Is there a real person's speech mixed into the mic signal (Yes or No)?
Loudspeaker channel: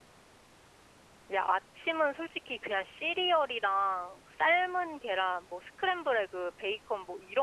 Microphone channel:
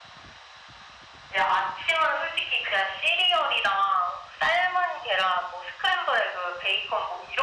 No